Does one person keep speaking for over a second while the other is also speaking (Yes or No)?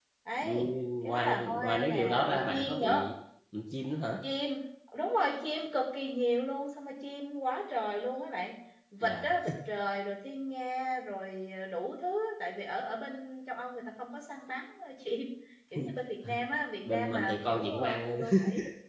Yes